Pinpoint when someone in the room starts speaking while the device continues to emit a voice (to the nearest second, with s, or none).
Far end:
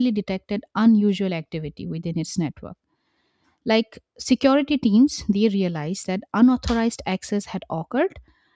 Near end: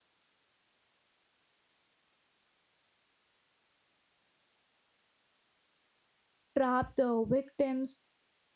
7 s